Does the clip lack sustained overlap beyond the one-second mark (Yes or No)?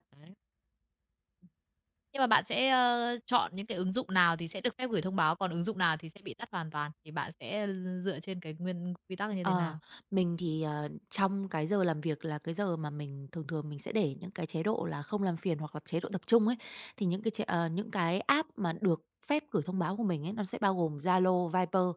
Yes